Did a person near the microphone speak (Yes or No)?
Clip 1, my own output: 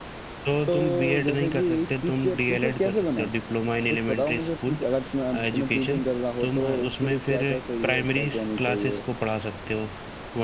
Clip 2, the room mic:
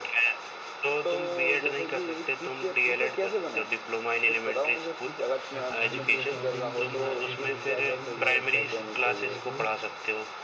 Yes